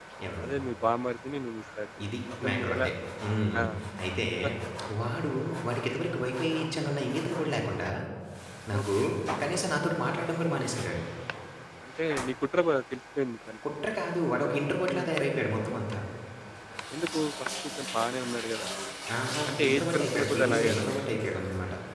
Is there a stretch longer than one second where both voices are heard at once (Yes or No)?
Yes